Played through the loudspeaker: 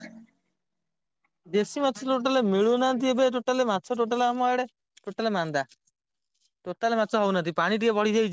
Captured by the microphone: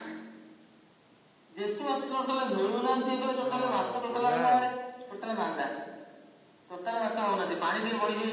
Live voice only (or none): ହଁ ବଢିଆ। ଆଉ